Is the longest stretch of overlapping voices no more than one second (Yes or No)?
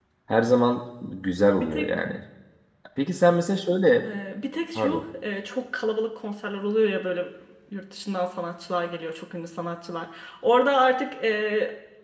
Yes